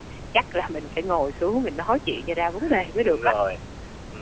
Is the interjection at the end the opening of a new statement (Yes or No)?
Yes